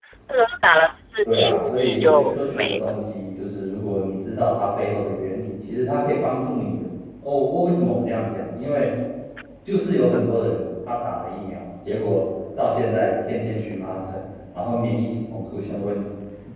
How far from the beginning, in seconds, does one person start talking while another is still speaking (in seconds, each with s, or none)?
1.2 s